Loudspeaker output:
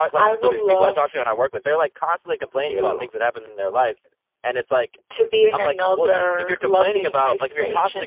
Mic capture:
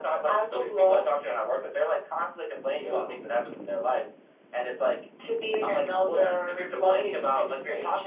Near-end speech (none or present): none